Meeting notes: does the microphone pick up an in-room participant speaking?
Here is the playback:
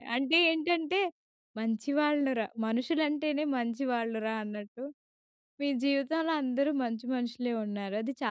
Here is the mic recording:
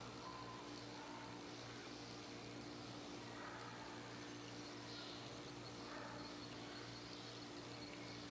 No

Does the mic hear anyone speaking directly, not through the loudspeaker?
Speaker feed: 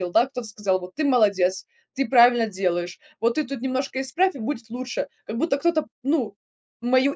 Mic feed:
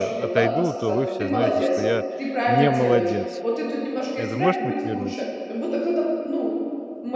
Yes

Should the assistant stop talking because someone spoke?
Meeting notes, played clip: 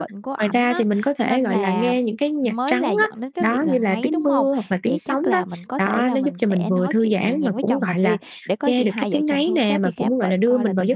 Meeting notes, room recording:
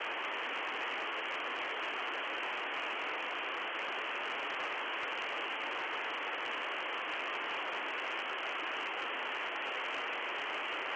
No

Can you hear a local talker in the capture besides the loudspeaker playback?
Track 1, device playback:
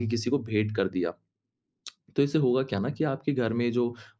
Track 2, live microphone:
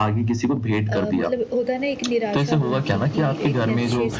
Yes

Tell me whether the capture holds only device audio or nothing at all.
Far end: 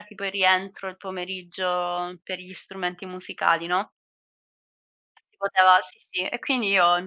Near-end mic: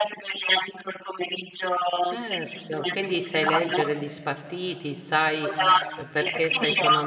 No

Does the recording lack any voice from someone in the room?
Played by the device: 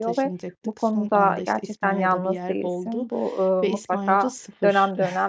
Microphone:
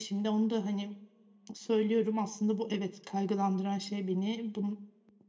No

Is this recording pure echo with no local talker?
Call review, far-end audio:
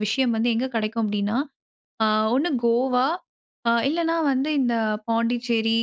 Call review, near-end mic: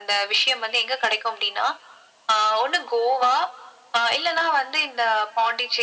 Yes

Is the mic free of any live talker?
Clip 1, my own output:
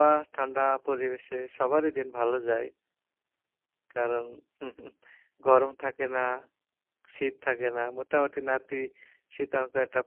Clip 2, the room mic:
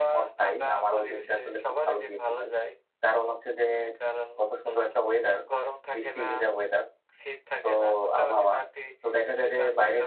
No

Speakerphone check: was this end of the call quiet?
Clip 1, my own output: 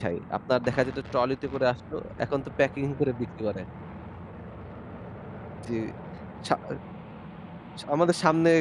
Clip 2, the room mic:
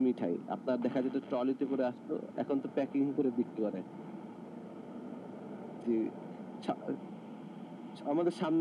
Yes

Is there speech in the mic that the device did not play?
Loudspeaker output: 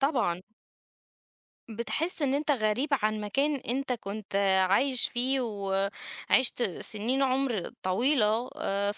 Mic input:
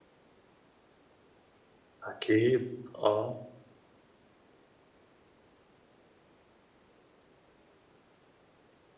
Yes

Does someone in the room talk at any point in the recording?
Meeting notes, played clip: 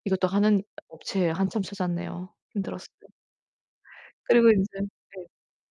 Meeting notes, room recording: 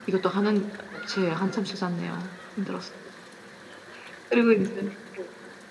No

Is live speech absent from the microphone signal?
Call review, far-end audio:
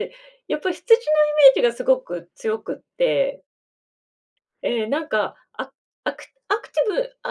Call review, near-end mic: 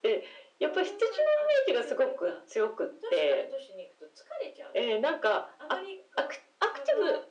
No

